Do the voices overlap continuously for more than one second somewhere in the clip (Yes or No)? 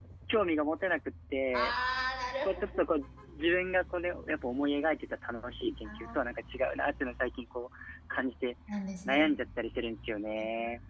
No